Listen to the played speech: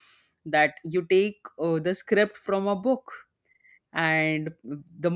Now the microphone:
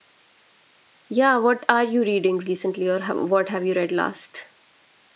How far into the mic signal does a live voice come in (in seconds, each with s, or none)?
1.1 s